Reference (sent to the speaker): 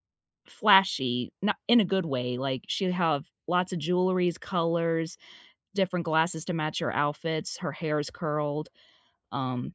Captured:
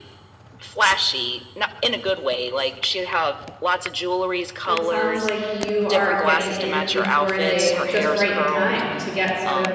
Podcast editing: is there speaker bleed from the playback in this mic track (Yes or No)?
Yes